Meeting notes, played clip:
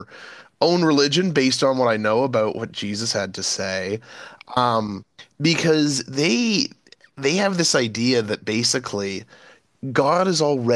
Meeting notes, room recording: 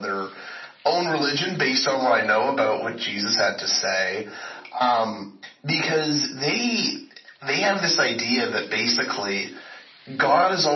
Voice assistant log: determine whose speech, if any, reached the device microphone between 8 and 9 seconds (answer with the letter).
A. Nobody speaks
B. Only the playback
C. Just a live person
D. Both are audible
B